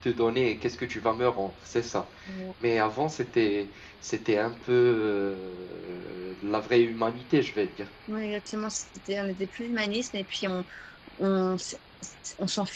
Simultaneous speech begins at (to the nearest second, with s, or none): none